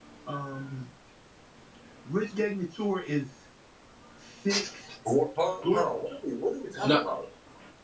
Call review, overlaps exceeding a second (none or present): none